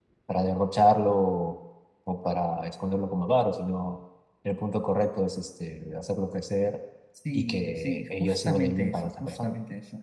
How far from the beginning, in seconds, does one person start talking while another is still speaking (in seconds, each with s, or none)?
7.3 s